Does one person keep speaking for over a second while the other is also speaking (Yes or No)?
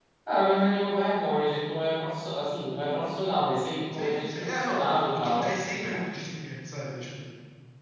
Yes